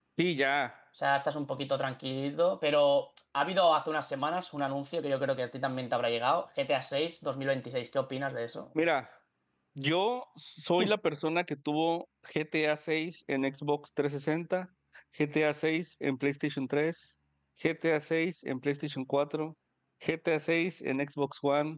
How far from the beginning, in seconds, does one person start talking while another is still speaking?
none

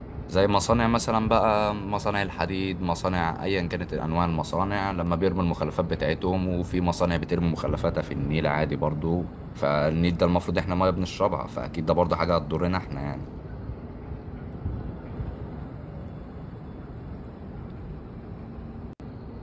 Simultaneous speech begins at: none

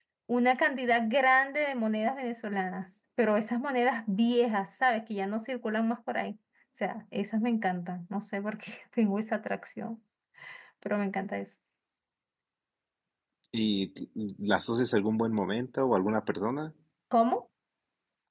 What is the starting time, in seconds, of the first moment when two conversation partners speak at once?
none

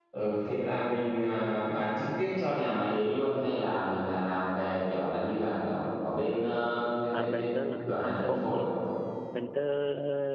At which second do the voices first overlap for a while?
7.1 s

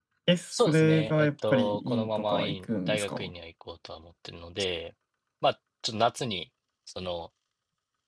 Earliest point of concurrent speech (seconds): 0.5 s

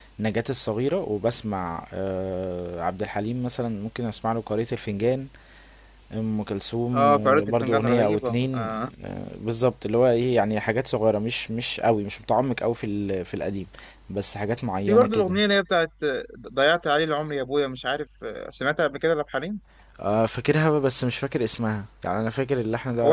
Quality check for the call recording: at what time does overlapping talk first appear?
6.9 s

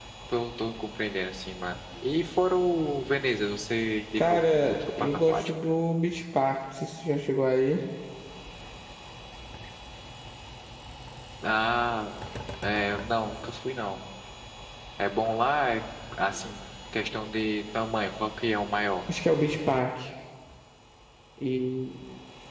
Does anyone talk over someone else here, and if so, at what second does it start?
4.2 s

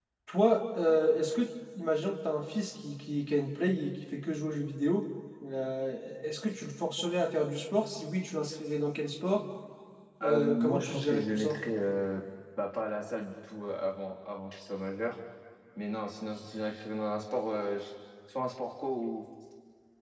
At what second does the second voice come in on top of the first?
10.2 s

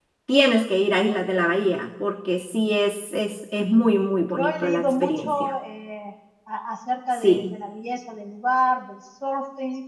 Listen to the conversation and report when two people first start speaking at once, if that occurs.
4.3 s

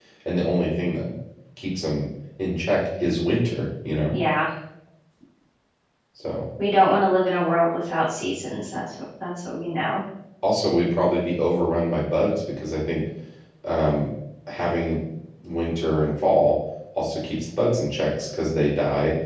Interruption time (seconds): none

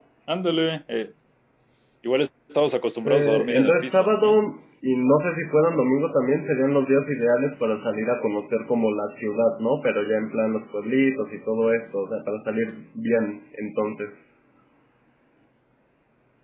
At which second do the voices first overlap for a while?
2.9 s

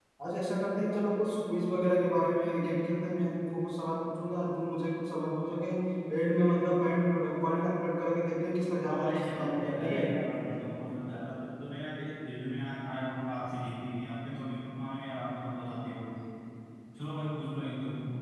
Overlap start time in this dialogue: 8.8 s

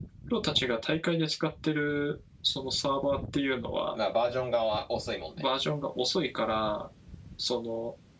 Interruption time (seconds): none

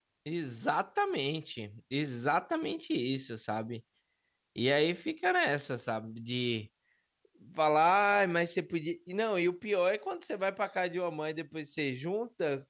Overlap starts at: none

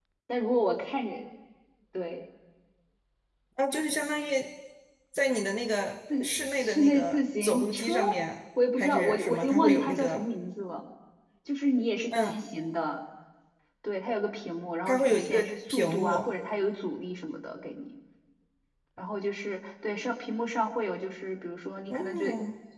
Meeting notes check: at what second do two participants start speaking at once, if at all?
6.2 s

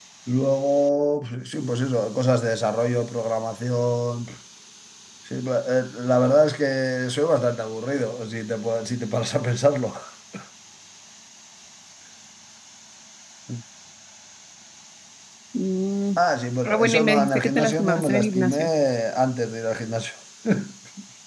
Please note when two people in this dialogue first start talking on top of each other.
16.6 s

